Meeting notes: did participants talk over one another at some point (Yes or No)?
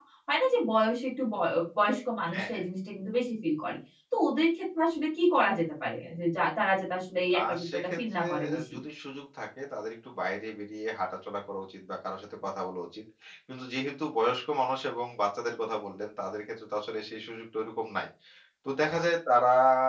Yes